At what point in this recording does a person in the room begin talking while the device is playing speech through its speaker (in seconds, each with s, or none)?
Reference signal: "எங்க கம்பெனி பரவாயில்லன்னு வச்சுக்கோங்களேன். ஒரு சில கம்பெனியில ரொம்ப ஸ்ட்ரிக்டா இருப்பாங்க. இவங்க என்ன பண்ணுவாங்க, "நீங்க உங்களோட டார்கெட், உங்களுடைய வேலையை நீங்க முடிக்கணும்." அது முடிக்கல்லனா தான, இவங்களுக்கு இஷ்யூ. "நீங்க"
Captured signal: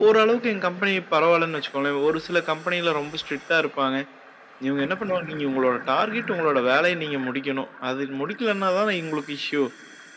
none